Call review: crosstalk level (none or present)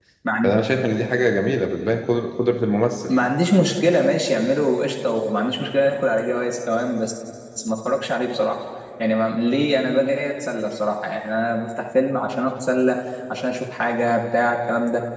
none